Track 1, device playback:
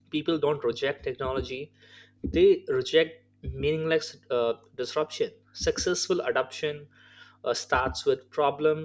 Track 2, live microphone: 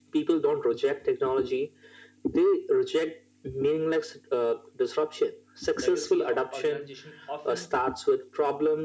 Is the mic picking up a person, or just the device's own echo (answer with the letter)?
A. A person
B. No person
A